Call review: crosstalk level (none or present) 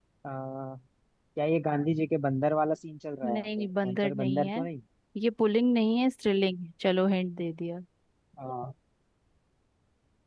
present